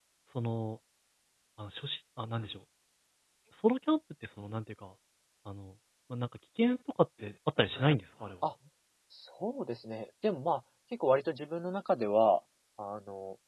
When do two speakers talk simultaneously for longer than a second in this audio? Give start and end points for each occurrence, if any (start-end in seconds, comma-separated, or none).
none